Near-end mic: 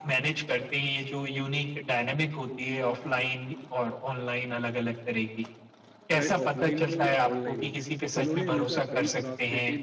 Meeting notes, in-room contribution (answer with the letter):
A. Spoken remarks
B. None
A